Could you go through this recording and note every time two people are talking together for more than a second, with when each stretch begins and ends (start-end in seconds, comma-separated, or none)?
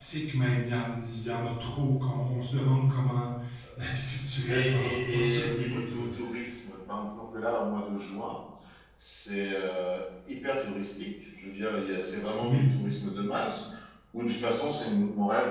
4.5-6.0